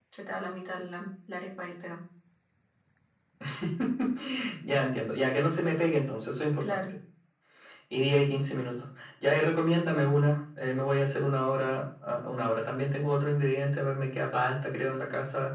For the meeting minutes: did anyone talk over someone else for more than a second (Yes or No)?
No